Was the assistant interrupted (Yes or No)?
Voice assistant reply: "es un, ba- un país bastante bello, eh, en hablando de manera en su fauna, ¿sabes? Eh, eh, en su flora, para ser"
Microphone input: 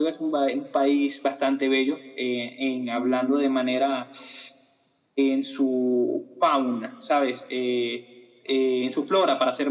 No